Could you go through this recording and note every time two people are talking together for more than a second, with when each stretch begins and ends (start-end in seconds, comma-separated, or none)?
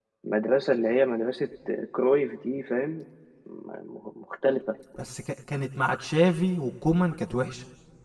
none